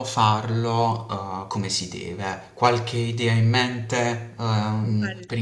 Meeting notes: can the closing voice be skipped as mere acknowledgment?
Yes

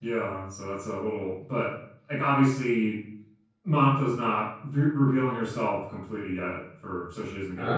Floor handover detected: No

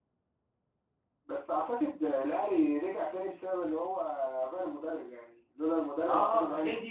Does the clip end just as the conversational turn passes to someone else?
Yes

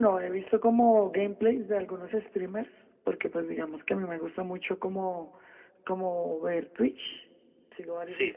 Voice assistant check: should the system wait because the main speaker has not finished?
Yes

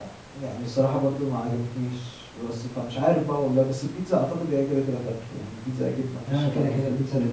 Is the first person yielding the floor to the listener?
Yes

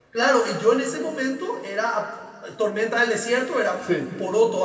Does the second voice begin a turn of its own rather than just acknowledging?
No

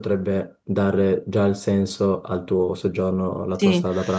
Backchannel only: No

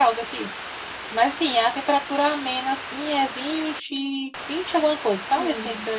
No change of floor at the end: Yes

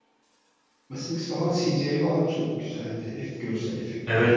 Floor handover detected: Yes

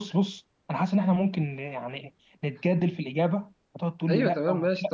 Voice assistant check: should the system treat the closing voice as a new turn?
Yes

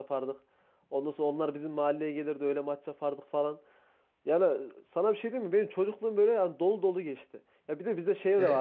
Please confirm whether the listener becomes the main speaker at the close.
No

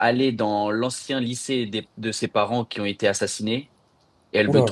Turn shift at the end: No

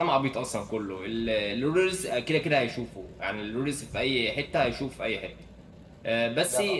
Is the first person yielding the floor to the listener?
No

